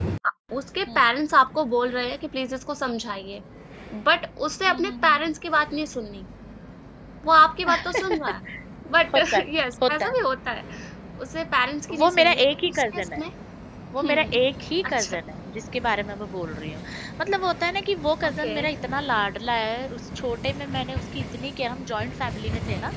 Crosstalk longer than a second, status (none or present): present